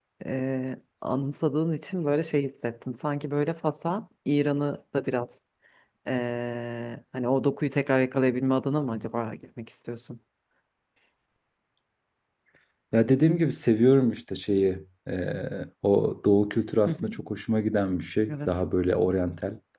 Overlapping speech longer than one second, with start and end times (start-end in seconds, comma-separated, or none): none